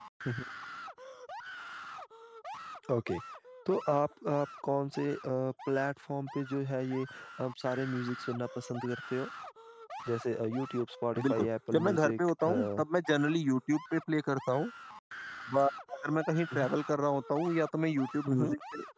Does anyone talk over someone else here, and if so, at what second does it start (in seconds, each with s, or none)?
11.2 s